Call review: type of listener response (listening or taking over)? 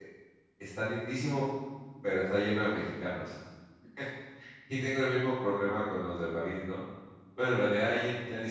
listening